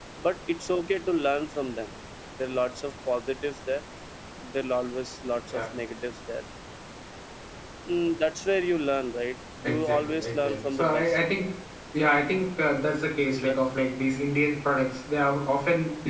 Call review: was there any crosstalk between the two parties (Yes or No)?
Yes